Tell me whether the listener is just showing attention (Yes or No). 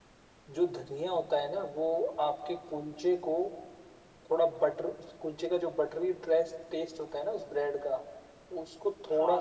Yes